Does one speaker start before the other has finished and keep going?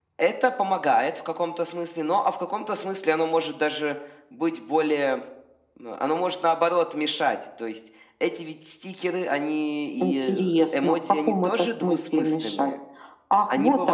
Yes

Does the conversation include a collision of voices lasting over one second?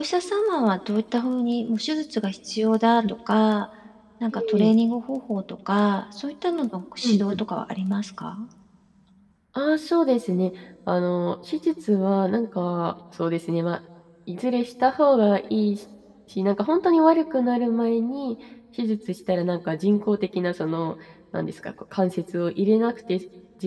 No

